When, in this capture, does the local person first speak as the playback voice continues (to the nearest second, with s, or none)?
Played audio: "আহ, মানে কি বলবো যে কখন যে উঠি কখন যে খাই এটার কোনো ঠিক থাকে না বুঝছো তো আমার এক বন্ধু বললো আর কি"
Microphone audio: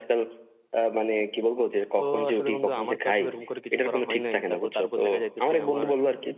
2 s